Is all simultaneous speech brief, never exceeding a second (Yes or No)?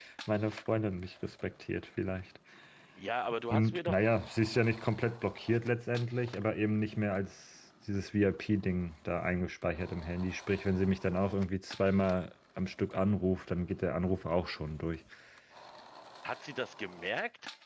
Yes